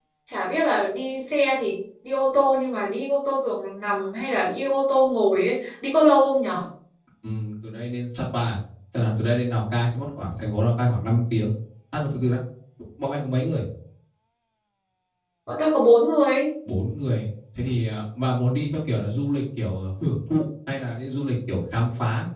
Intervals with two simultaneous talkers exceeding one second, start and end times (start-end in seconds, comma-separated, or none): none